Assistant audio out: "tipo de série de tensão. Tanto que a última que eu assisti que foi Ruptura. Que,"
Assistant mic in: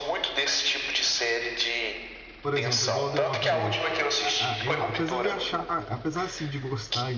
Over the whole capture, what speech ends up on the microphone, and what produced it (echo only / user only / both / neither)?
both